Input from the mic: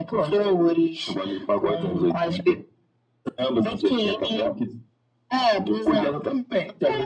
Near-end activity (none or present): none